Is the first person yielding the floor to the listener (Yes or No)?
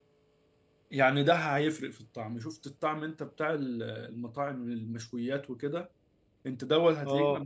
No